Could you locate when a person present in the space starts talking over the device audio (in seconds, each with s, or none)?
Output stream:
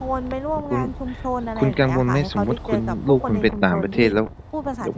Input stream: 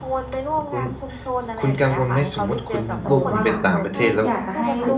3.0 s